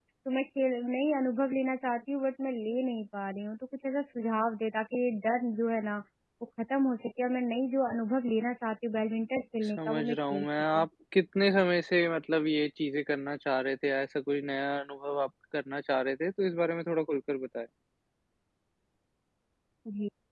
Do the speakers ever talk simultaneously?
Yes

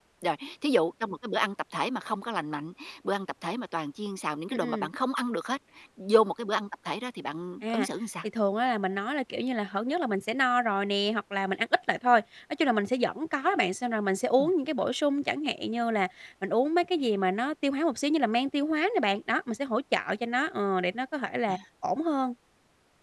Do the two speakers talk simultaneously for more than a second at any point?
No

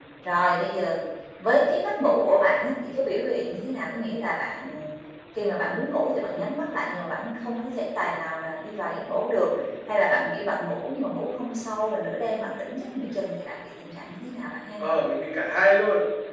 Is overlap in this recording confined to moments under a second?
Yes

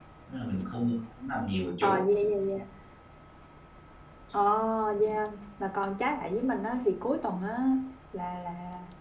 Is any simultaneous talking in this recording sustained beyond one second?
No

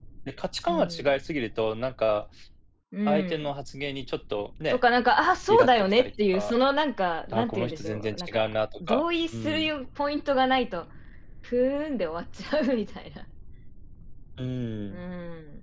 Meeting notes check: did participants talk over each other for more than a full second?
Yes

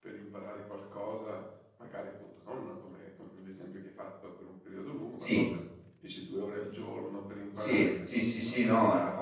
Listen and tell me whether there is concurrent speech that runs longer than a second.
Yes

